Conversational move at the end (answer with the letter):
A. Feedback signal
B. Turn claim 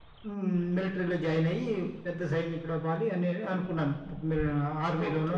B